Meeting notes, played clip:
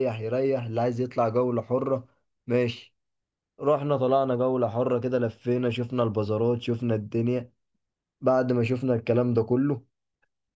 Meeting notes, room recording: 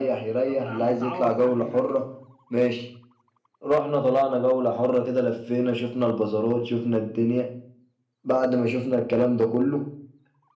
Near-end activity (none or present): present